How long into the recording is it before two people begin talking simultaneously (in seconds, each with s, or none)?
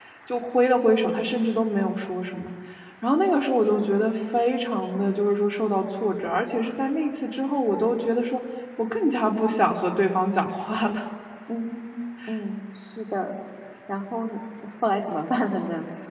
none